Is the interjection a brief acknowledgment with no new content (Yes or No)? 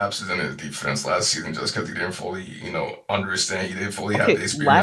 No